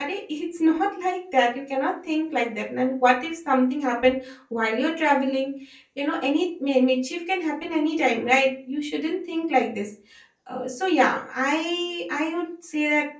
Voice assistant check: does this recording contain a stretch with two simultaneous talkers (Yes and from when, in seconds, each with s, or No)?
No